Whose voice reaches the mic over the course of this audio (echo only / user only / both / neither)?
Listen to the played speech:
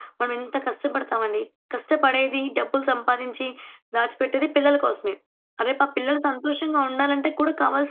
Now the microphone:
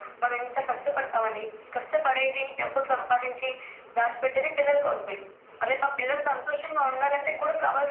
echo only